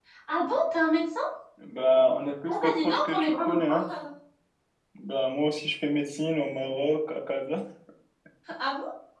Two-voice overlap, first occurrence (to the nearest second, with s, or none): 2 s